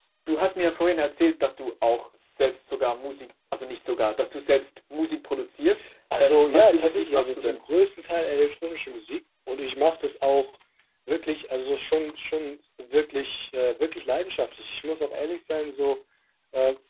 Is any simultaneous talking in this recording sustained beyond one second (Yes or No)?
Yes